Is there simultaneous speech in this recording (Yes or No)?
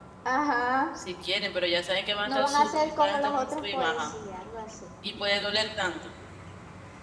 Yes